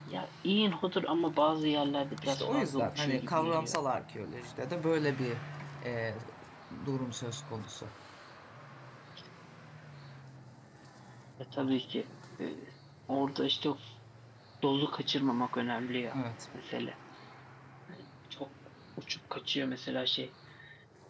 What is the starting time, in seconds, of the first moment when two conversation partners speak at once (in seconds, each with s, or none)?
2.2 s